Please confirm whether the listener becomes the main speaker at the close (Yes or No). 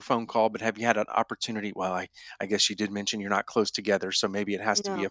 No